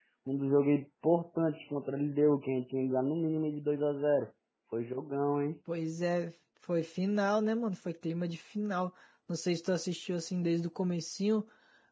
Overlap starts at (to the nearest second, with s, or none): none